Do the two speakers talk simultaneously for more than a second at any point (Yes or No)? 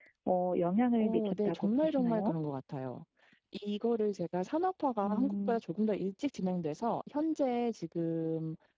Yes